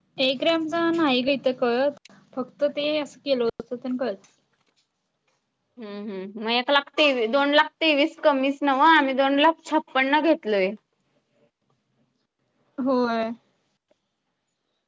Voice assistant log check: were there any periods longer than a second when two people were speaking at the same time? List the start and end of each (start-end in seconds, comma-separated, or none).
none